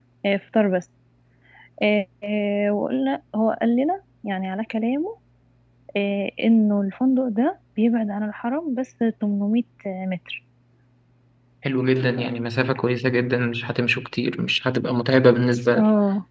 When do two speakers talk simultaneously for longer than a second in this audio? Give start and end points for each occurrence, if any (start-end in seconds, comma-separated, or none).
none